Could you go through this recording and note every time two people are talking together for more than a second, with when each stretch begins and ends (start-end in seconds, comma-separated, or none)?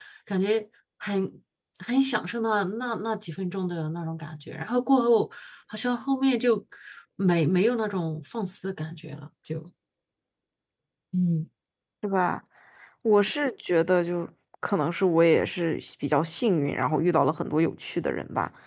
none